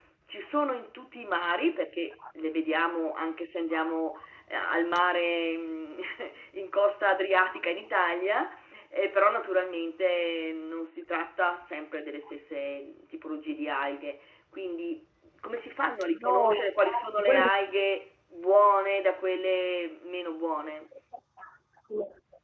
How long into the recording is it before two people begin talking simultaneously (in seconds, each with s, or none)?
16.1 s